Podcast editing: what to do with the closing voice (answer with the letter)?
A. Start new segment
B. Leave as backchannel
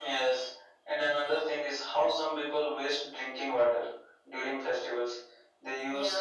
B